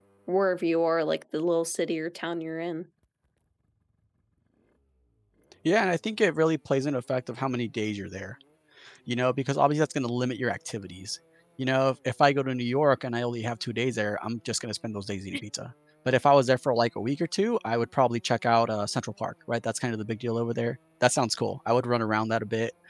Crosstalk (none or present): none